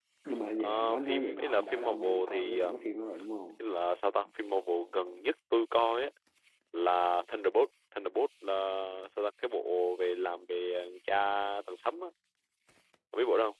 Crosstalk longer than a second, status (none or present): present